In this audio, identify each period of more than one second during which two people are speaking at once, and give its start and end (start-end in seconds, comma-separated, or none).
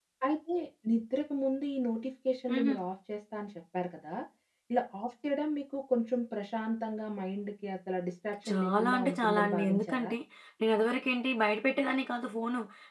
8.5-10.1